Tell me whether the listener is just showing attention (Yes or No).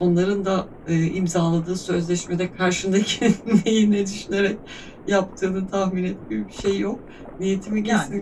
Yes